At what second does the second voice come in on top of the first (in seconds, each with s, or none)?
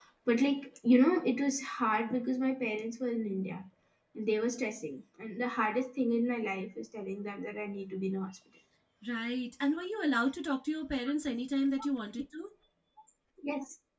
none